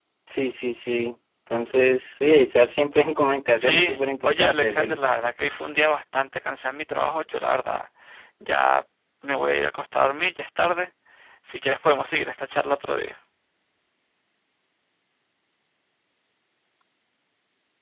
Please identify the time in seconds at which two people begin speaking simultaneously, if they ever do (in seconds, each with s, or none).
3.6 s